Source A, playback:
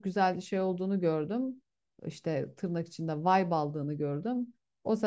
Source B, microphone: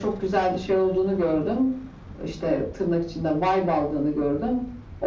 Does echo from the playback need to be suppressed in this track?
Yes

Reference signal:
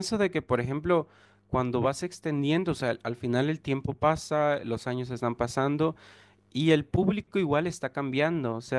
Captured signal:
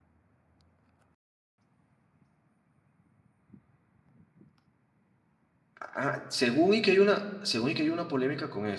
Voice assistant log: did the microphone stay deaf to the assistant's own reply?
Yes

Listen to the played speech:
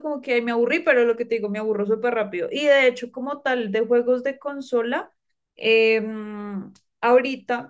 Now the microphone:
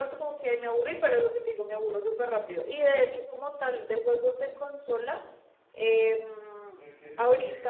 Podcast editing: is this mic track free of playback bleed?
No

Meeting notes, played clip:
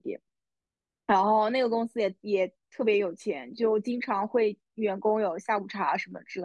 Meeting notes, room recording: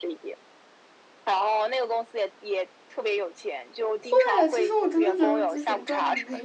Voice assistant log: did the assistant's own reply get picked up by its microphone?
Yes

